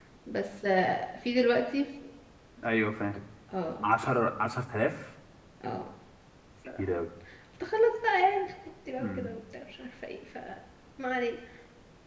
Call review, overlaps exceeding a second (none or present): none